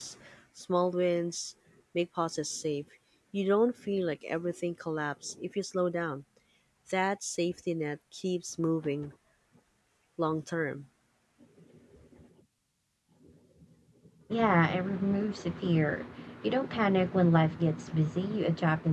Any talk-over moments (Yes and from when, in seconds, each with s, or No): No